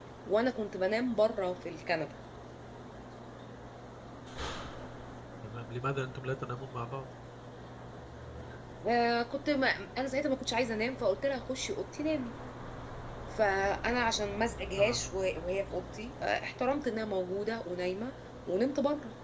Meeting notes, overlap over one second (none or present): none